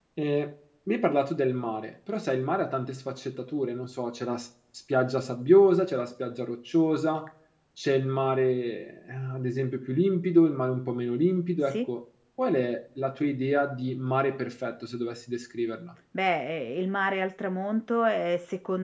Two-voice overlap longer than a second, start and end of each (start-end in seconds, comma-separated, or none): none